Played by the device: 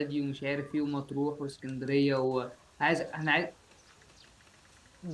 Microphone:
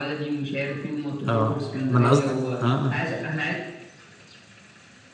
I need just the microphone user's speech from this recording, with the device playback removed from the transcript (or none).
اه ما انا قصدي اه آه.